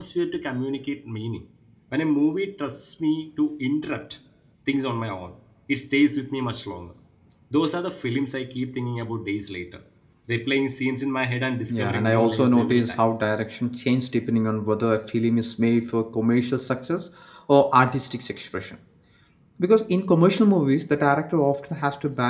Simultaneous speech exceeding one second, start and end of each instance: 11.7-13.0

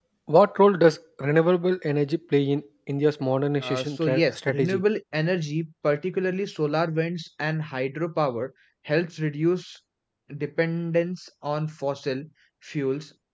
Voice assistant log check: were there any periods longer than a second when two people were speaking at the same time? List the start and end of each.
3.6-4.8

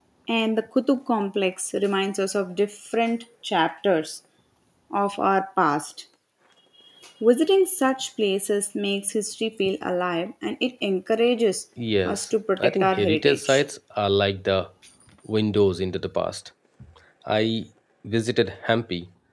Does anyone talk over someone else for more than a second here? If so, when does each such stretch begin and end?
12.1-13.6

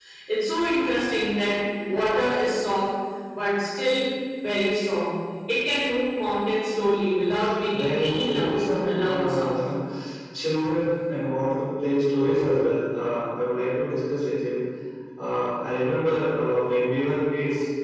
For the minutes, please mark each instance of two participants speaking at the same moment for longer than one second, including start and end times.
7.7-9.5

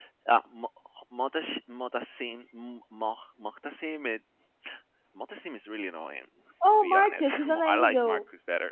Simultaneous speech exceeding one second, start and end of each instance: 6.7-8.2

